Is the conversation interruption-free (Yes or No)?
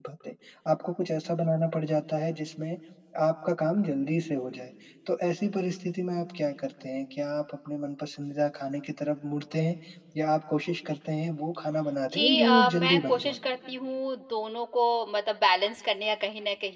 No